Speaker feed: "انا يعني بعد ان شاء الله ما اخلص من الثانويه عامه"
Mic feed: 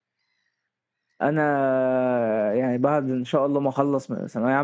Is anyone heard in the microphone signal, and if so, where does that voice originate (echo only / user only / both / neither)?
echo only